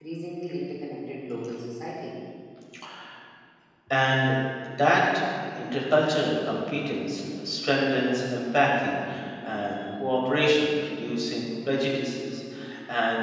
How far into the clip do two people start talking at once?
none

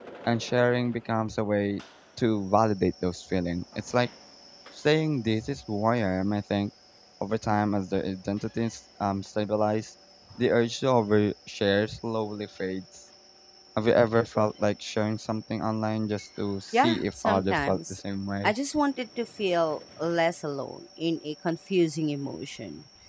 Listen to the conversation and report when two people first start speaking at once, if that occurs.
16.7 s

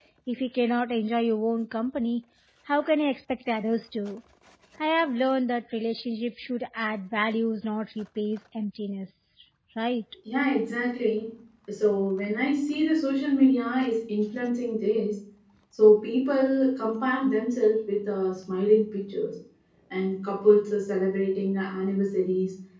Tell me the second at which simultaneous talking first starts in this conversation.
none

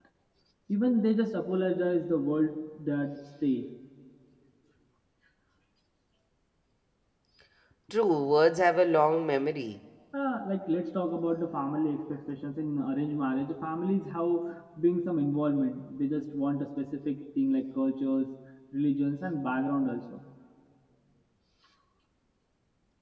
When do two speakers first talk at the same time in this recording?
none

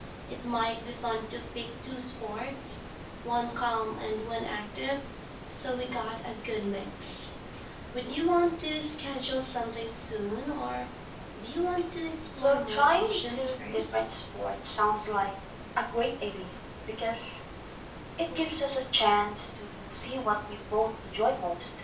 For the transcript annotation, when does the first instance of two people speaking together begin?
12.4 s

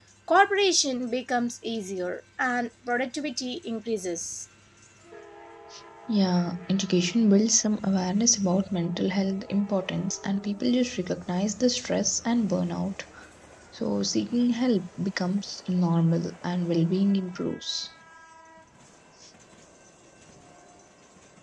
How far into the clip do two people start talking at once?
none

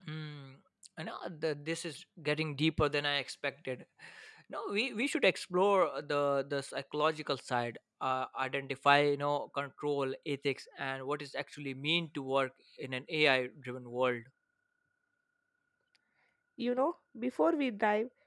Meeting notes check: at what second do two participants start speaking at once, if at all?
none

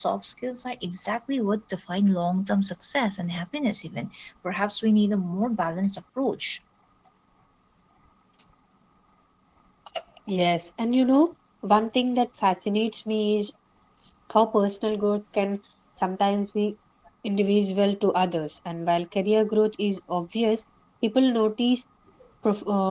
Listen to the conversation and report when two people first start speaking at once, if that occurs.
none

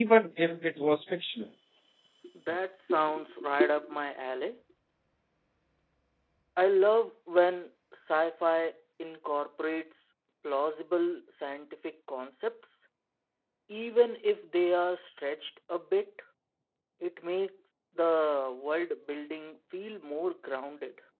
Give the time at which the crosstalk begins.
none

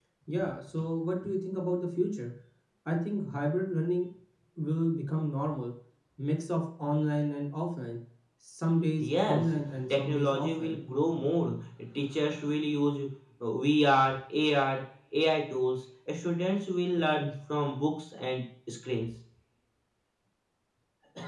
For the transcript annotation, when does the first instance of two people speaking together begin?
9.0 s

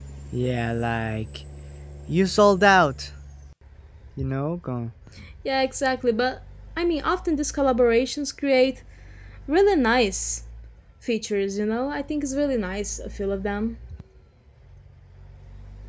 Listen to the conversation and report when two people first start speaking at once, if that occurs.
none

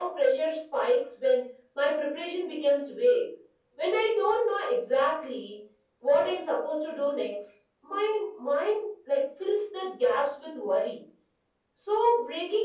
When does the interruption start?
none

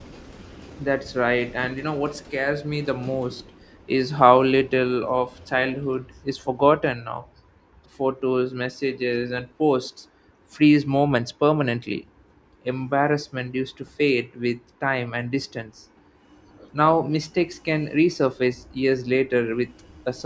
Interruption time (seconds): none

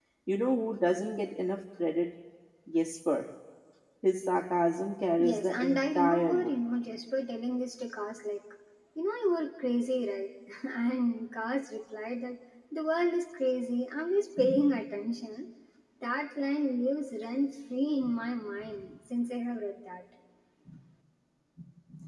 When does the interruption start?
5.2 s

